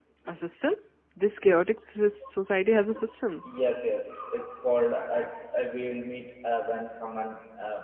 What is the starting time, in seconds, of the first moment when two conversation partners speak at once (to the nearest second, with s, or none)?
none